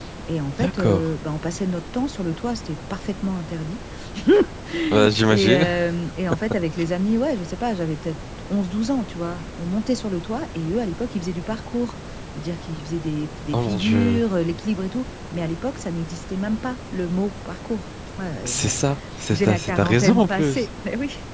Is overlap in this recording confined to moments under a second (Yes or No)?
No